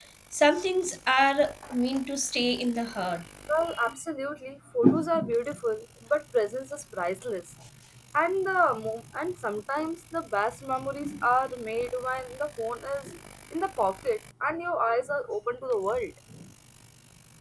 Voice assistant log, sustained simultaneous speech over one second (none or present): none